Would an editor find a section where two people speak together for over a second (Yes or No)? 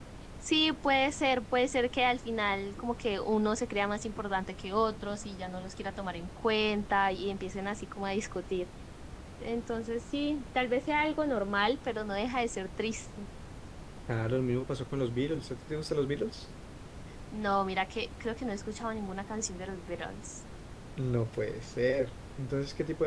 No